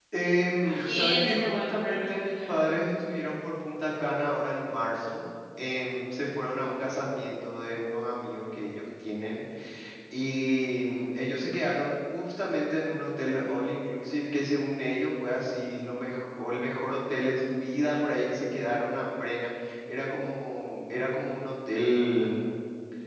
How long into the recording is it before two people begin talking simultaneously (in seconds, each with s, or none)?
0.6 s